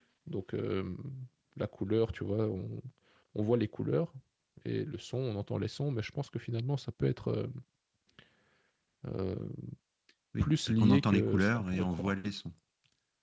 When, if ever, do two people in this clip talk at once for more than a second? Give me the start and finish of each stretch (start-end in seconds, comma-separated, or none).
10.4-12.1